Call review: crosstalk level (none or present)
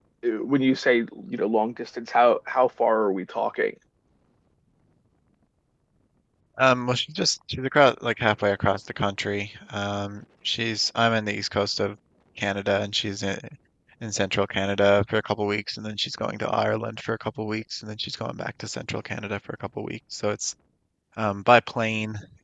none